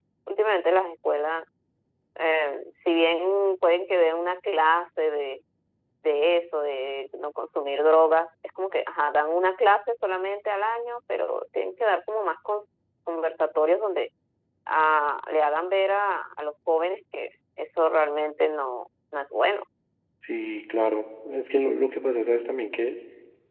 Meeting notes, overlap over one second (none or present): none